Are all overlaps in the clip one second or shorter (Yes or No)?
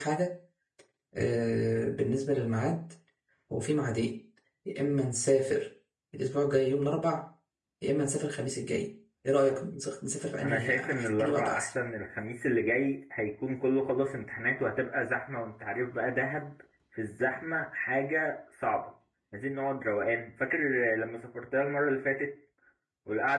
No